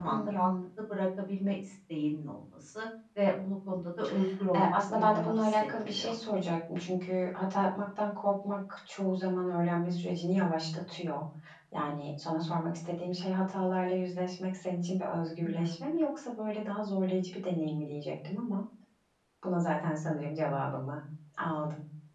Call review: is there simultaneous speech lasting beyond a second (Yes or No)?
Yes